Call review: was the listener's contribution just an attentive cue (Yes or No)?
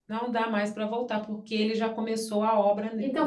No